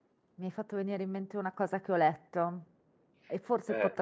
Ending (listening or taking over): listening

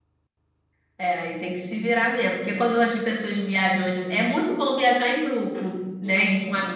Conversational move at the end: listening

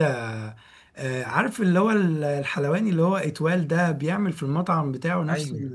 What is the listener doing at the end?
listening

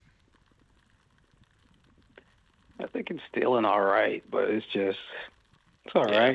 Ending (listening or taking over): listening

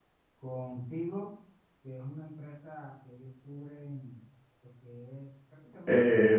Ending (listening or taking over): taking over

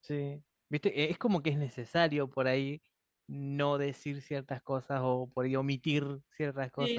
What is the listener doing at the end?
taking over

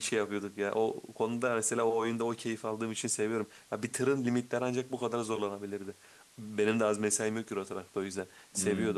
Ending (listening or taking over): listening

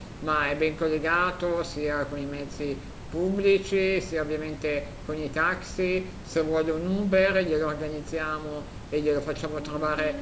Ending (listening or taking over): taking over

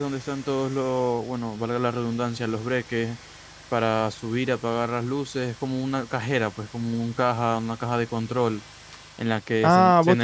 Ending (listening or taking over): taking over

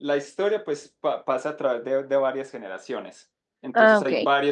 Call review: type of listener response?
listening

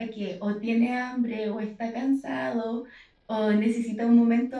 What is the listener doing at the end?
listening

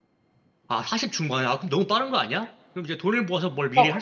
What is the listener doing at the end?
taking over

